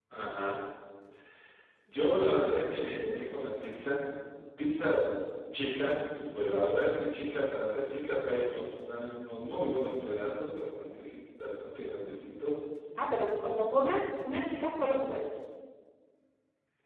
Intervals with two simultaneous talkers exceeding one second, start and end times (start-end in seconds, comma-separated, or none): none